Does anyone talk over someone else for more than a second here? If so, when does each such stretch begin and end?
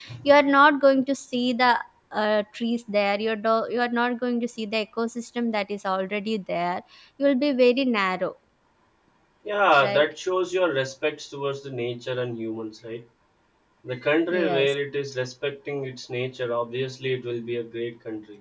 none

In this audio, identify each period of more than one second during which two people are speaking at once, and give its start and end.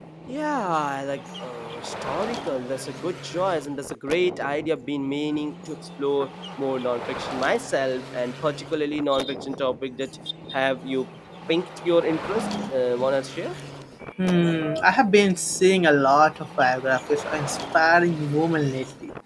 none

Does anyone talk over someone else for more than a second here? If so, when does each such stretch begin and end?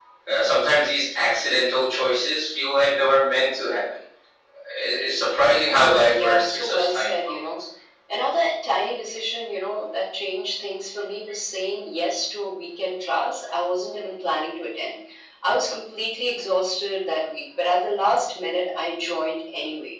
6.1-7.6

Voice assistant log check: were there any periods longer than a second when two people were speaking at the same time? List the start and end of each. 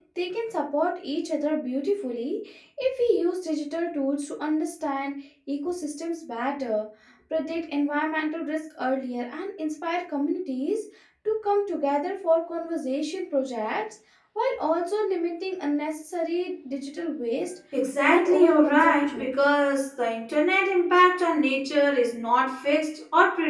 18.0-19.3

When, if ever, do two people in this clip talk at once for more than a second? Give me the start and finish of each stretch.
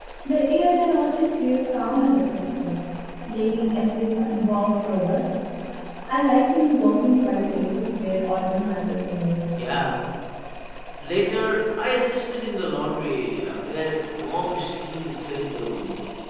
none

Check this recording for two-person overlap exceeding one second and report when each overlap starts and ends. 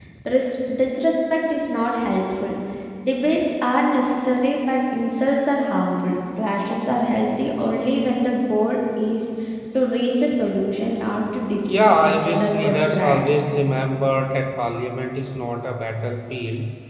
11.7-13.3

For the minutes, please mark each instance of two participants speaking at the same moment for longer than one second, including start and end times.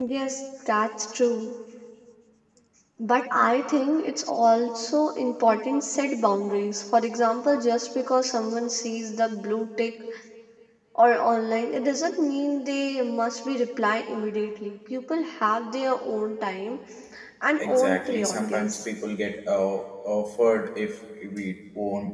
17.6-18.9

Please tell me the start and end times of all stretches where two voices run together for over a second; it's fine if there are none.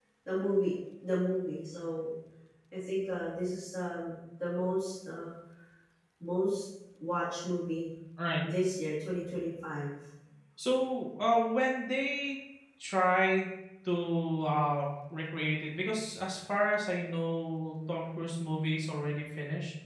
none

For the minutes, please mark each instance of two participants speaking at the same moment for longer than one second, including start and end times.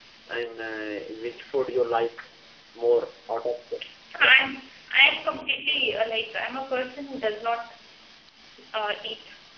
none

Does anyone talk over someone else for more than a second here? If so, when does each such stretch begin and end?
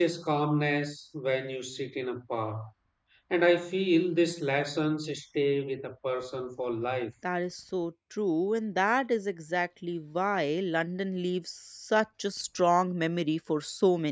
none

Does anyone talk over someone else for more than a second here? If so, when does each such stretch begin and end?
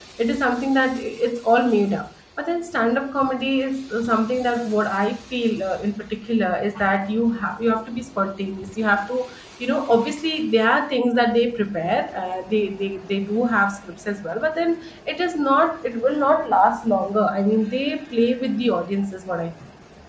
none

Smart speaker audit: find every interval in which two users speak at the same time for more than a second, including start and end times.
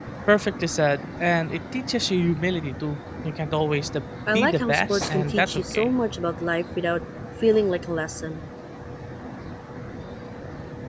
4.3-5.9

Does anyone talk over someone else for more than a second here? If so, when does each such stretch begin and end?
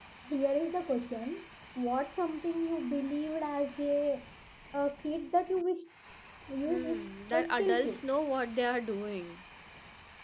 6.7-8.0

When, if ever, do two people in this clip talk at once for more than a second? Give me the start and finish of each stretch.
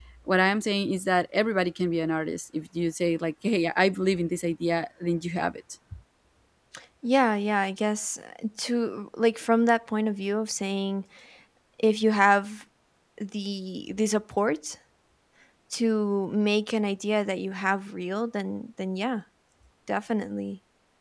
none

